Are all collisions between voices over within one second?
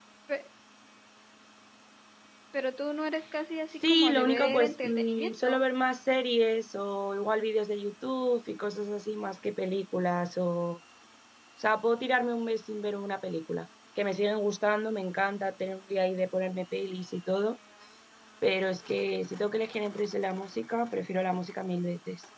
No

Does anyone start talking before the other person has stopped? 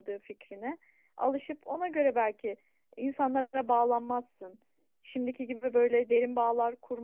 No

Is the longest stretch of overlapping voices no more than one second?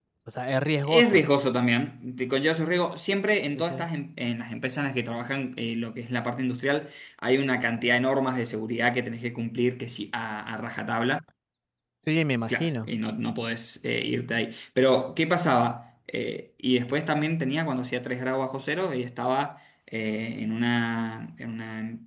Yes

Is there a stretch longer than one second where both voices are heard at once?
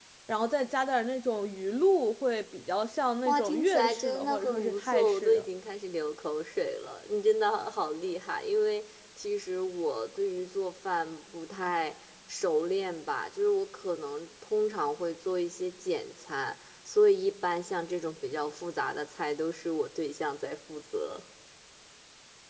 Yes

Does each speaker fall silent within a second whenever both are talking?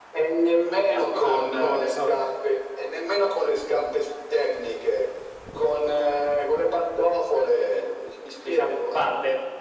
No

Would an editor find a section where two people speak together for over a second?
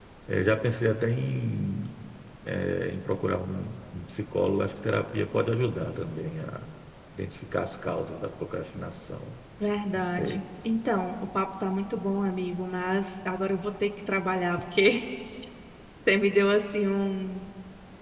No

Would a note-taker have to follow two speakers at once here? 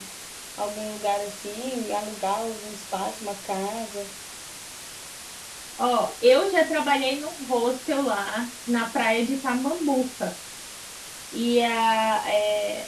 No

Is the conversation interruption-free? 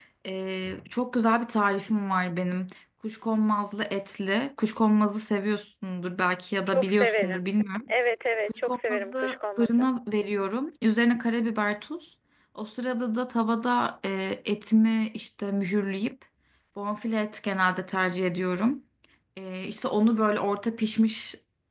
No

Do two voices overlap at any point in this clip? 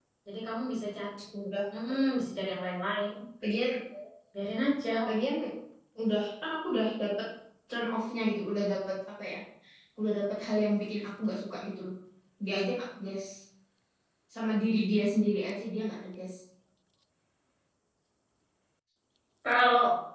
No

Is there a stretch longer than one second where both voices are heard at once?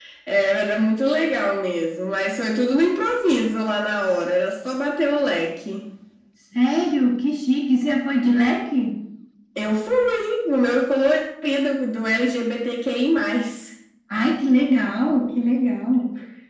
No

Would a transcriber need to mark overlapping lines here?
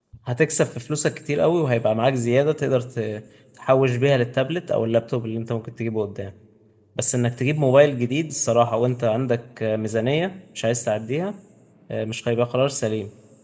No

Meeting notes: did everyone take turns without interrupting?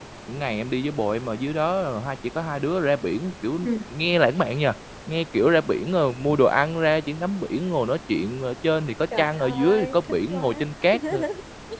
No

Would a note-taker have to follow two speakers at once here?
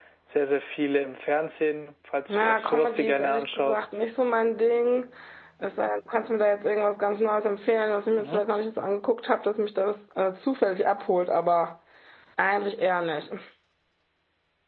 Yes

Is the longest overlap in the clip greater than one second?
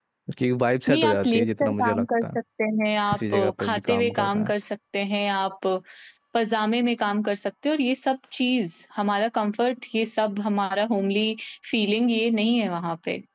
Yes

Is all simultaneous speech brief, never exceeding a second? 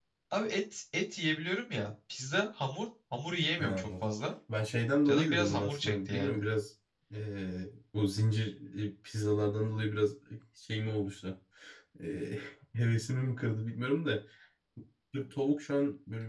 No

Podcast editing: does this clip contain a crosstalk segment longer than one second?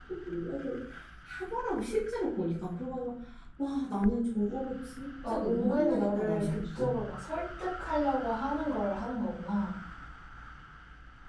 Yes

